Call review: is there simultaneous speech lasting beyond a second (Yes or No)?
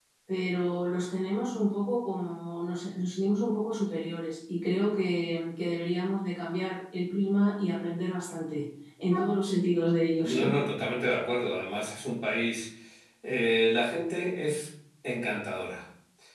No